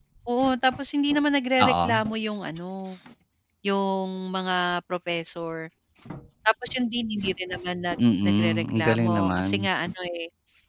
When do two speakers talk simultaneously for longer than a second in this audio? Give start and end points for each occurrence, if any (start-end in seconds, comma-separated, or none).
8.2-9.7